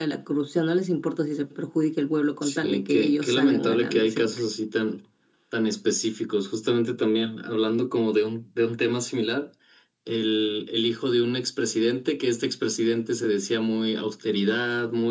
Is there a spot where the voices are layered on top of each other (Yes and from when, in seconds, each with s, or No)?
Yes, from 2.4 s